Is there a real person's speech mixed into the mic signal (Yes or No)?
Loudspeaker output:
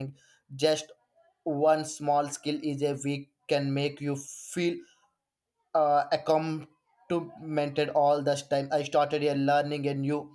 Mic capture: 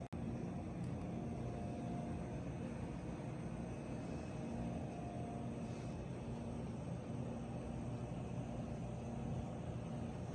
No